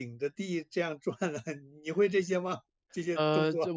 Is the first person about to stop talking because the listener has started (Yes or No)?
Yes